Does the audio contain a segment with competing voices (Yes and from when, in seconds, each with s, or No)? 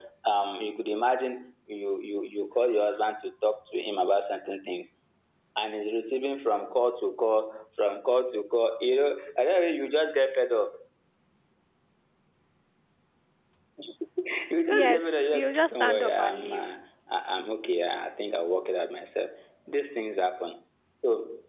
Yes, from 14.7 s